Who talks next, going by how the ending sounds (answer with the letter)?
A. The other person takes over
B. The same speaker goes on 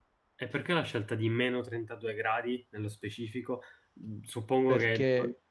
B